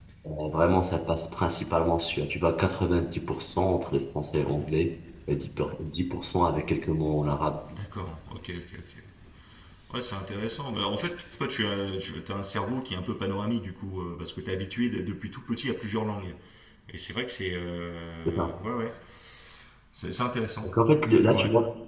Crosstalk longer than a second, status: none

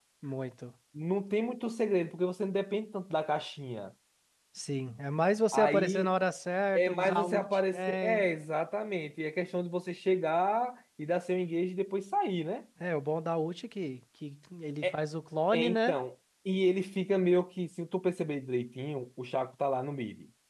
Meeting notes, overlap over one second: present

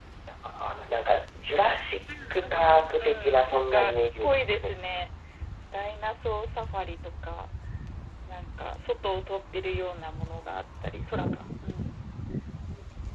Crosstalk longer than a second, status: present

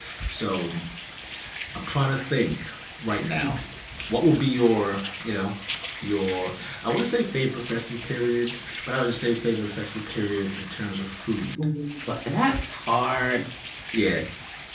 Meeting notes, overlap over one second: none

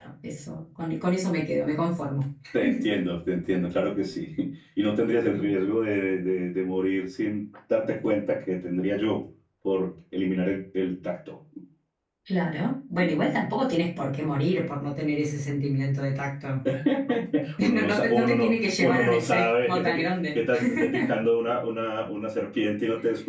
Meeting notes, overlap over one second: present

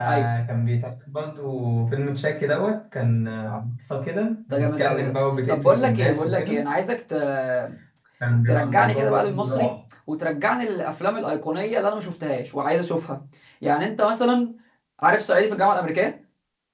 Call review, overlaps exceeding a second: present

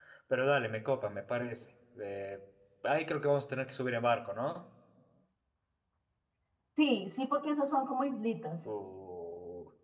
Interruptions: none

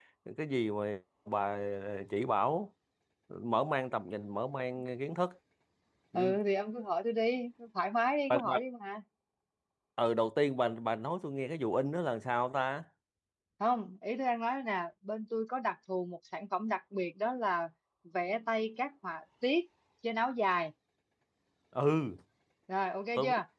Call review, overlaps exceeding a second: none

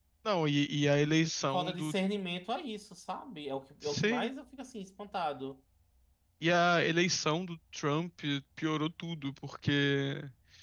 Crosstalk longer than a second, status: none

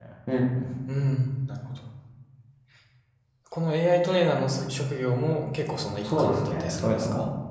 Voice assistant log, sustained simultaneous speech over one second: present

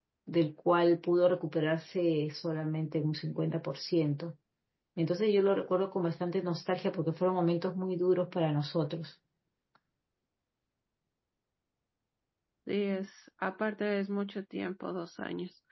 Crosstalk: none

